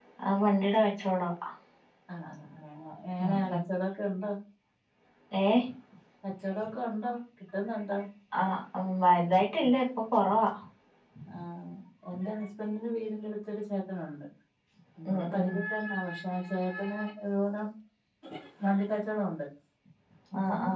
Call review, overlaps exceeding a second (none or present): none